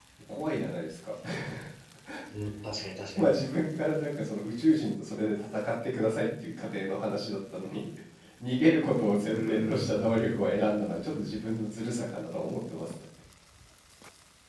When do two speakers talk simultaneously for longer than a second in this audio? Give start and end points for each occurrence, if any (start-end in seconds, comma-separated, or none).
9.3-11.5